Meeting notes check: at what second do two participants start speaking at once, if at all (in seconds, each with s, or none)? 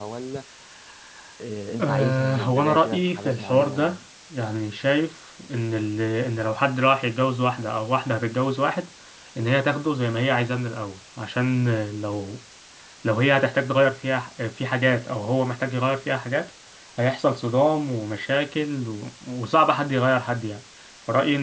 1.8 s